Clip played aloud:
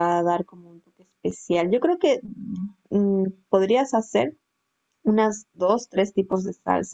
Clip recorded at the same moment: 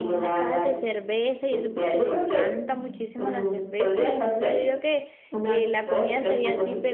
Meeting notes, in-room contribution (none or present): present